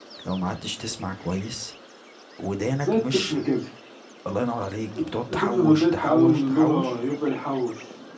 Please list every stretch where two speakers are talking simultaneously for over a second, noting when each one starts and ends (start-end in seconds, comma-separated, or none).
5.3-7.0